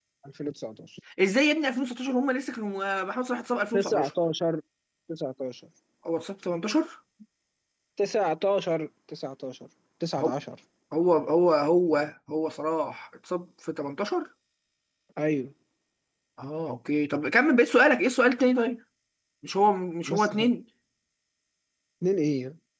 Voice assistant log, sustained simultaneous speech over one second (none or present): none